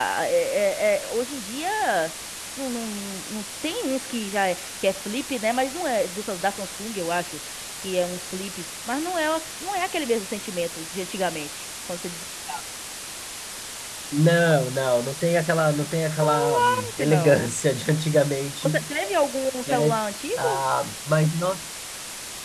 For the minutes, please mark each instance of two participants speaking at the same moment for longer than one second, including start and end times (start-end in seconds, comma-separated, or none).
16.2-17.6